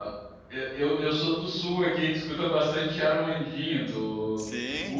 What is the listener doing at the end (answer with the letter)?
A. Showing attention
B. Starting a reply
B